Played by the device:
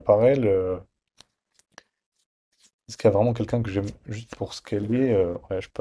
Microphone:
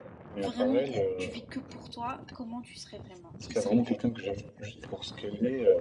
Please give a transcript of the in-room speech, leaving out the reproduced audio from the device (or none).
vraiment t'es- tu vis que pour toi, comment tu serais vraiment? Qui serais-tu?